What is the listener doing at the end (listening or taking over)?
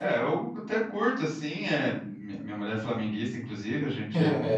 listening